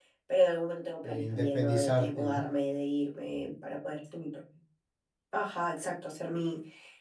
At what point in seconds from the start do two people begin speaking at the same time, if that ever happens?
1.0 s

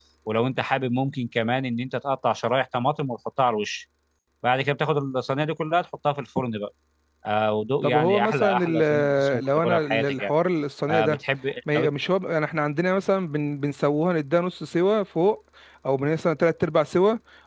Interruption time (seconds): 7.8 s

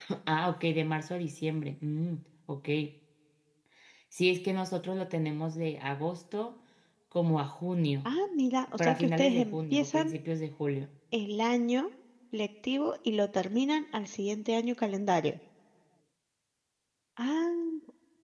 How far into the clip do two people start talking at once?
8.8 s

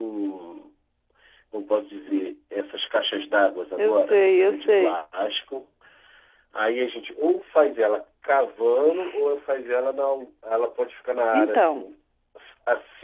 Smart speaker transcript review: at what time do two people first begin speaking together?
3.8 s

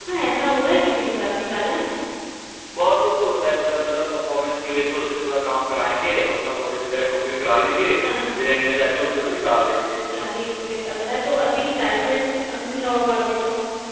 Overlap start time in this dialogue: none

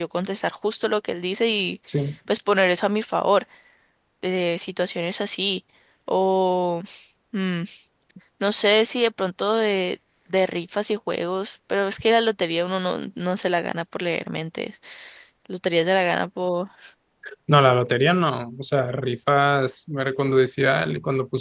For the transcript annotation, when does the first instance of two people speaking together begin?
none

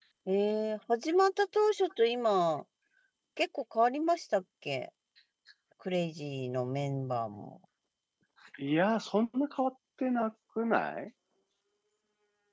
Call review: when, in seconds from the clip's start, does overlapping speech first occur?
none

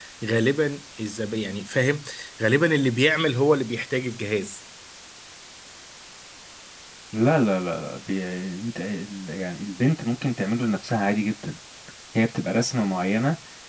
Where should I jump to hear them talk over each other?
none

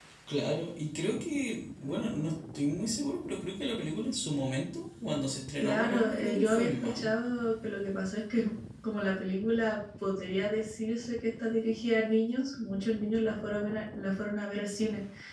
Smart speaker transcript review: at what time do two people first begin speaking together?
5.6 s

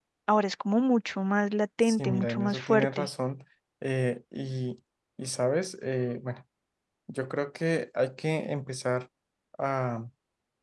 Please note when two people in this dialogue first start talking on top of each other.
1.8 s

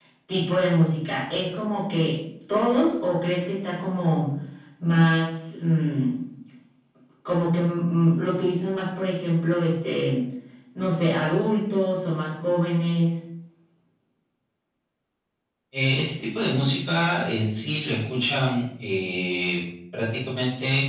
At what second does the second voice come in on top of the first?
none

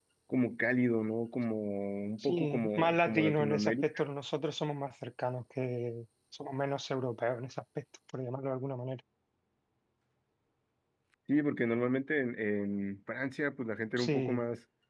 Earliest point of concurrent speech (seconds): 2.2 s

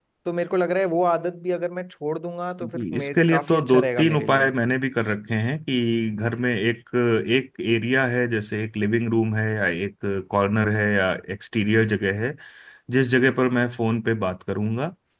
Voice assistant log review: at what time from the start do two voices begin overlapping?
2.6 s

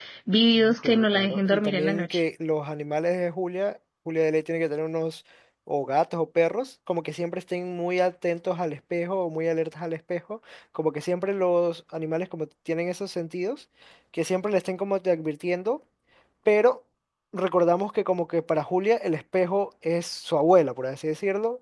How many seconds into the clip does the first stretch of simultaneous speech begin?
0.5 s

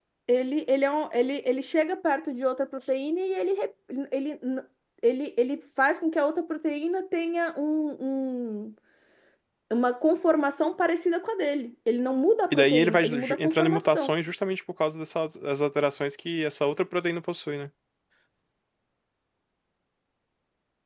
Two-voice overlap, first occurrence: 12.5 s

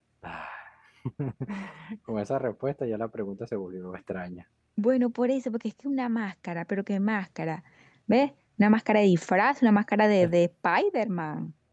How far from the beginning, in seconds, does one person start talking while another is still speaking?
none

